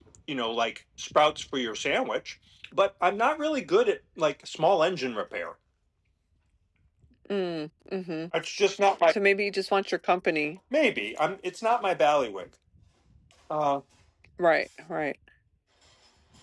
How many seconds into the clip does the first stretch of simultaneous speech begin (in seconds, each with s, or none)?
none